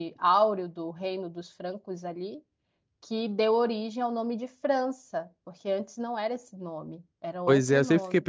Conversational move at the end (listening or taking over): taking over